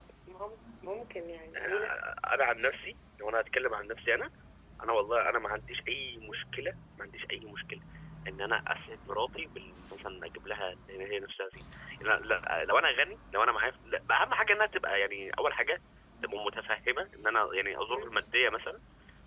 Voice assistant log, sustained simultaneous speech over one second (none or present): none